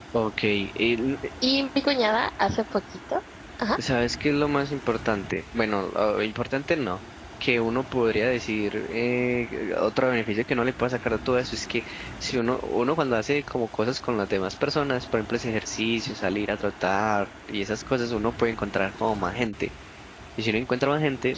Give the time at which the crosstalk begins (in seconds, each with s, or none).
none